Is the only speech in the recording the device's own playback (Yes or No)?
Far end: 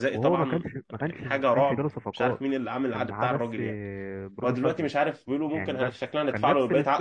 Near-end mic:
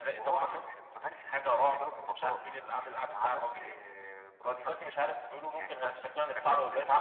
Yes